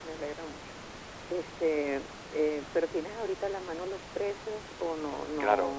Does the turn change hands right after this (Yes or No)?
Yes